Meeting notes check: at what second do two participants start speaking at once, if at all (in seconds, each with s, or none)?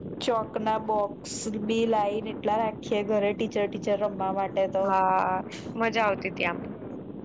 none